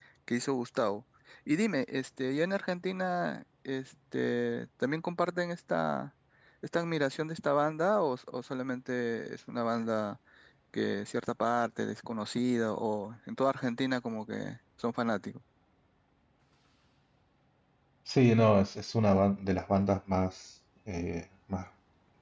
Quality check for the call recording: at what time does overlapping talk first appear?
none

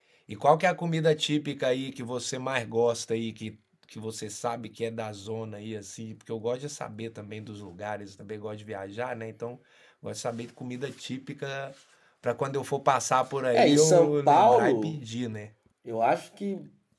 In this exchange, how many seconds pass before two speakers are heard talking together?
14 s

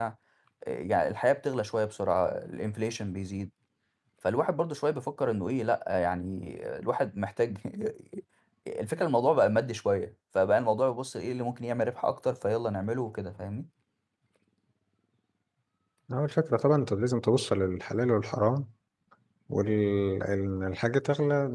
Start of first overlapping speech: none

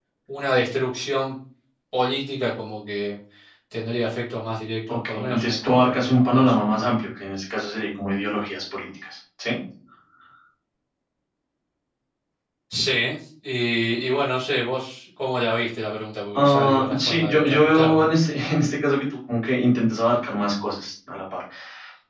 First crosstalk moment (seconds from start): 5 s

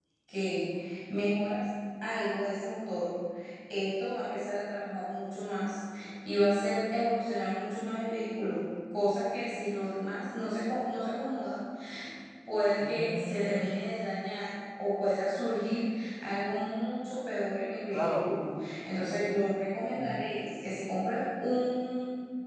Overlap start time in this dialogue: 13 s

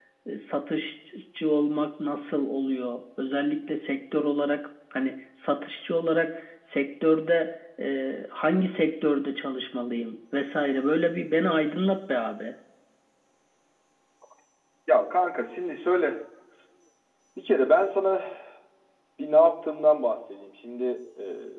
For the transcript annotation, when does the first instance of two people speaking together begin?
none

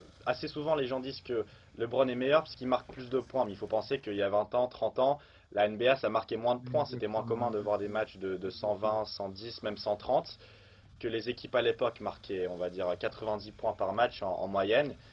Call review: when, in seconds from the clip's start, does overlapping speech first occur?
7 s

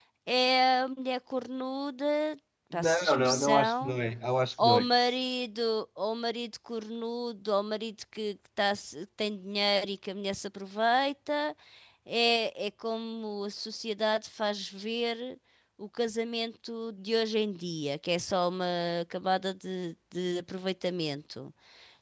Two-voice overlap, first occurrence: 3 s

